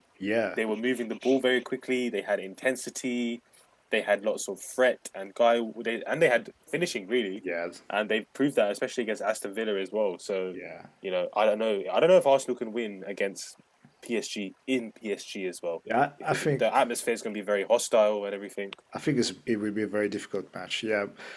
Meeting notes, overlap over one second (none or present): none